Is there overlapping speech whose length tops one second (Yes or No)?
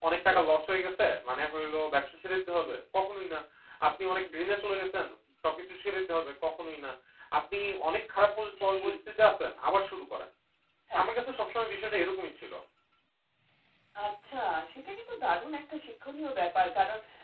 No